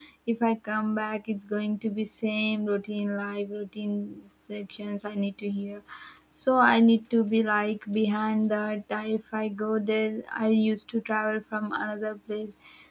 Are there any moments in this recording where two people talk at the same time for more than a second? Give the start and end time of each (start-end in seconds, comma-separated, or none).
none